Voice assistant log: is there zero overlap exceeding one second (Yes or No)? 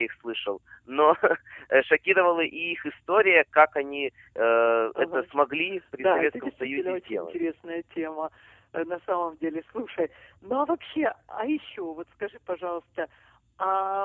No